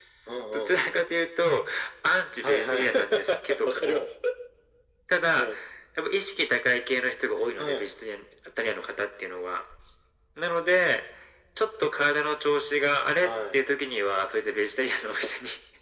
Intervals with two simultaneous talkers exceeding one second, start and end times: 2.4-4.0

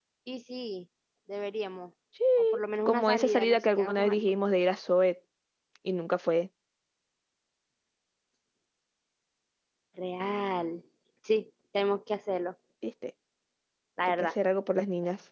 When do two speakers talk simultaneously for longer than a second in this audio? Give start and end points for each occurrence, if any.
2.9-4.3

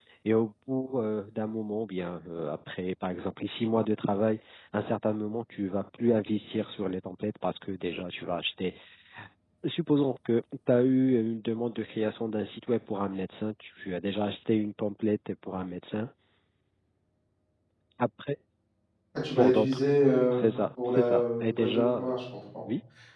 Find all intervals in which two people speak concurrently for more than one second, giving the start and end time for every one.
20.8-22.2

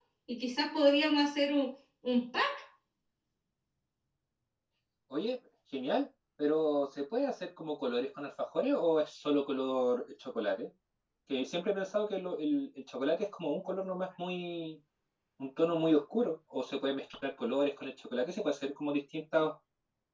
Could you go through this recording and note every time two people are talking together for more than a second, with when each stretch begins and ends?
none

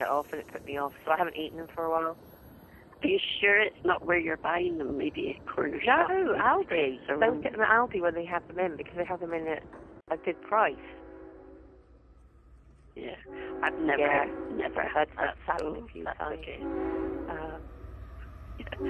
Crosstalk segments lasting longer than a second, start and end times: 5.8-7.7, 14.8-16.6

